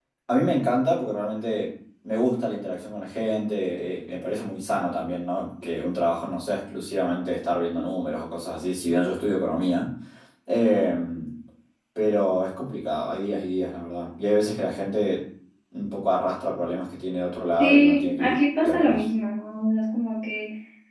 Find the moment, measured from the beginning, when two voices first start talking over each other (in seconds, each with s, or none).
17.6 s